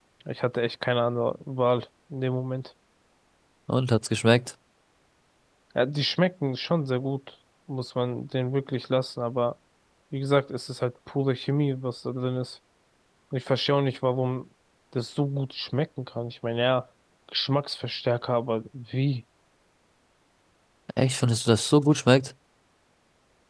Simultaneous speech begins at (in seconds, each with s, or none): none